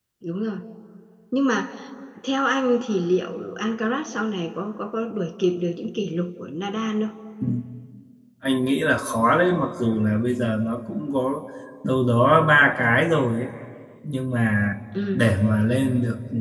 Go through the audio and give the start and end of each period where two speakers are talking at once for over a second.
none

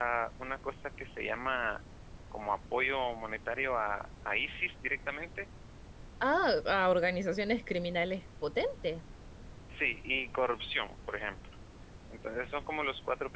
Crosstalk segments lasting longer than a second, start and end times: none

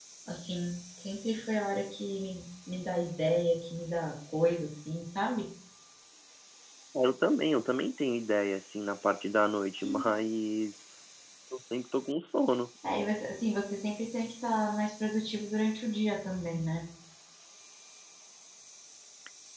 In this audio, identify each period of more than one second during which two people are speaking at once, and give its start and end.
none

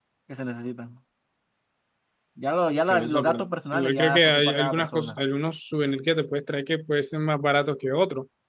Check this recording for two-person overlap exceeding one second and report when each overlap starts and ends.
2.9-5.2

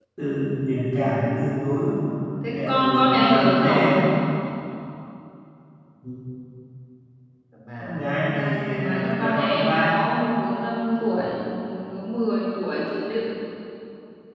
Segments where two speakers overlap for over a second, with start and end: 2.5-3.9, 7.8-10.0

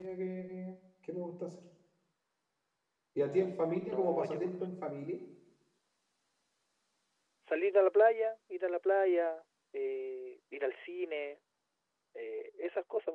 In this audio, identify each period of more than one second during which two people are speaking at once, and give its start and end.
3.3-4.6

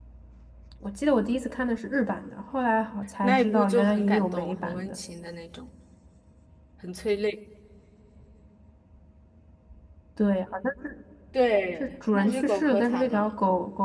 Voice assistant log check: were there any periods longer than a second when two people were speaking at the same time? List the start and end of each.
3.2-5.0, 11.8-13.3

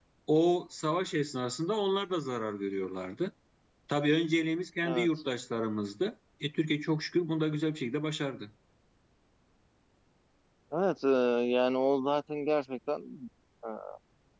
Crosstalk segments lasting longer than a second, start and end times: none

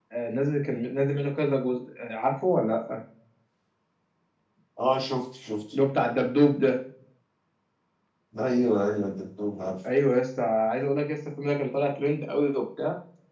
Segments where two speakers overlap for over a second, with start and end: none

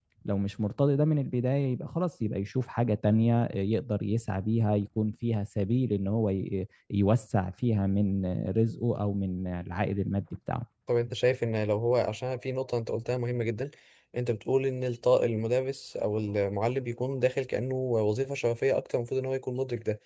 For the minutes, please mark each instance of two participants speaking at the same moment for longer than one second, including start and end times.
none

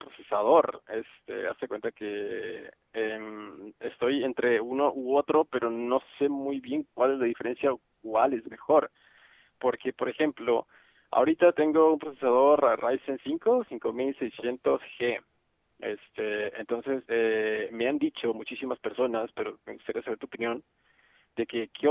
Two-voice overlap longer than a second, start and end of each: none

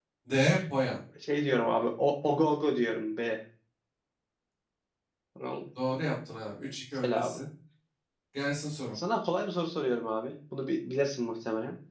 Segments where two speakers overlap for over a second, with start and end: none

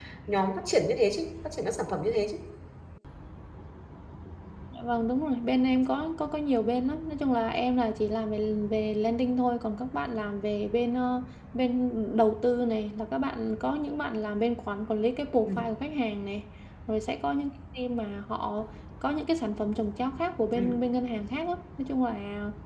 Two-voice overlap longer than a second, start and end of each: none

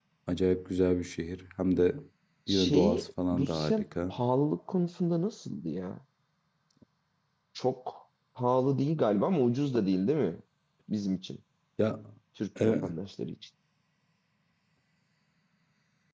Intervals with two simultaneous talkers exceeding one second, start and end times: 2.5-4.1

